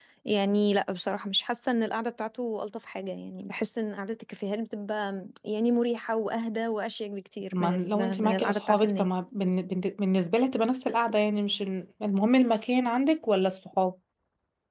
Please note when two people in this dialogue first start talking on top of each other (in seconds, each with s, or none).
7.5 s